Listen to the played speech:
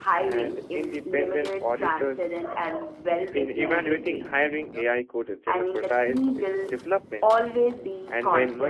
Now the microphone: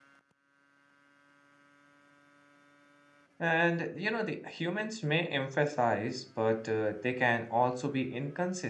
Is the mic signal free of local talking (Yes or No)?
No